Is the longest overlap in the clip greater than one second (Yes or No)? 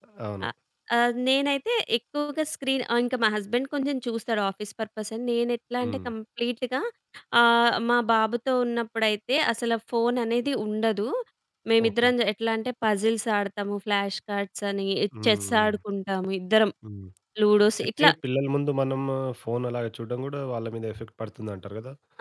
No